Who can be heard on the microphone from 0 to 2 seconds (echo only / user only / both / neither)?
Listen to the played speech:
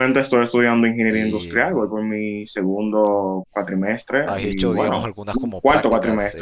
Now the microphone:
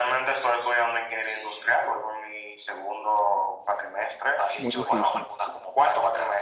echo only